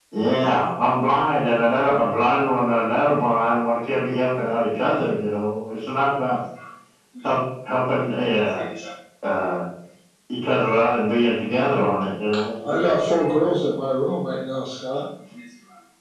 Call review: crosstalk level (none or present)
none